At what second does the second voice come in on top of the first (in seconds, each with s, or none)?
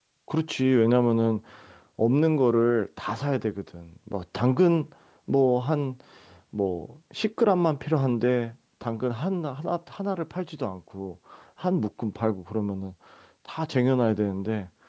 none